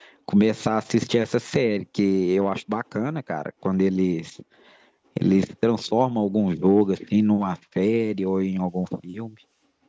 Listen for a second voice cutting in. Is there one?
No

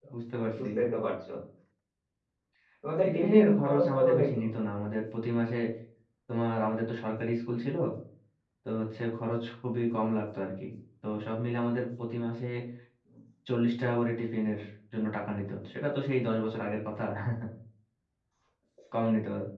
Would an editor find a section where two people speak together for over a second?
Yes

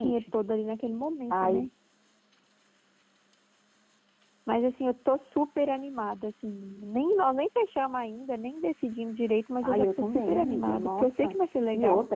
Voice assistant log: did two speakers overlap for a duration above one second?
Yes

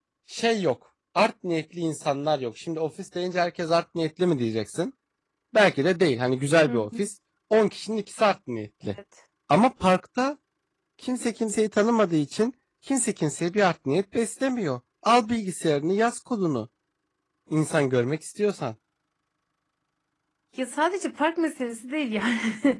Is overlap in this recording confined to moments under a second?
Yes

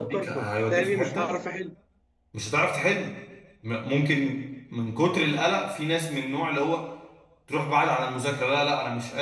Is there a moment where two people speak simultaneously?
Yes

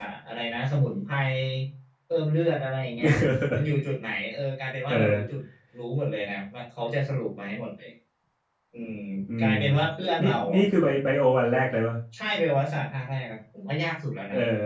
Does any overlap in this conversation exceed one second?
No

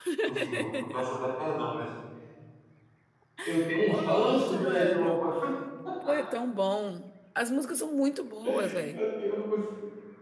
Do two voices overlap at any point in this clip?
Yes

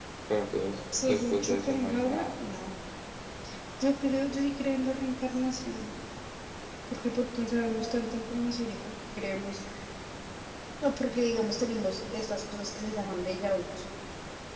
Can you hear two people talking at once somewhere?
Yes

